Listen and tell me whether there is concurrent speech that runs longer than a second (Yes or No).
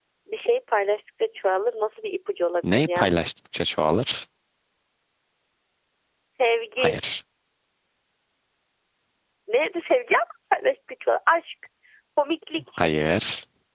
No